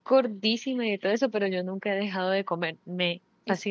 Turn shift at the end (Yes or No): Yes